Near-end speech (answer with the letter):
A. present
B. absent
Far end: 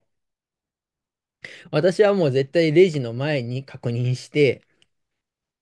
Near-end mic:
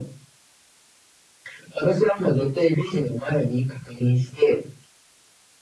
B